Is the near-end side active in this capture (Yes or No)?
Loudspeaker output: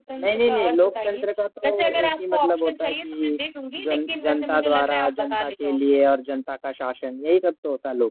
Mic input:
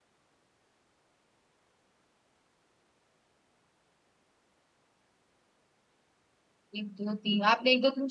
Yes